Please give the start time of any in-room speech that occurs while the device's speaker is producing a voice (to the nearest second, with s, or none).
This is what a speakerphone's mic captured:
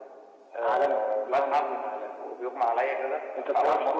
none